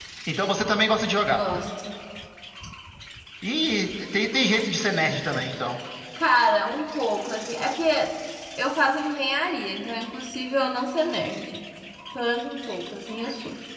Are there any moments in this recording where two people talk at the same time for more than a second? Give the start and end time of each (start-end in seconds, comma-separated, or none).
none